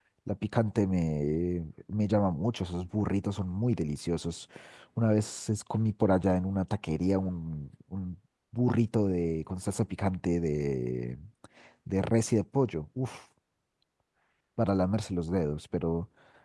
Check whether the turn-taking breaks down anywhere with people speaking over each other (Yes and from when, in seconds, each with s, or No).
No